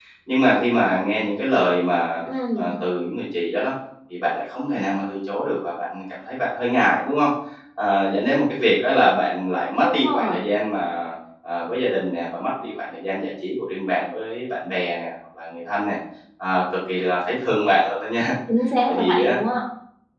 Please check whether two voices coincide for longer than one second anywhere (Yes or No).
No